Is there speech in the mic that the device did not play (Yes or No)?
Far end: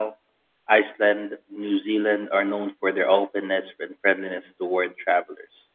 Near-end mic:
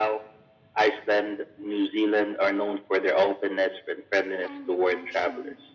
Yes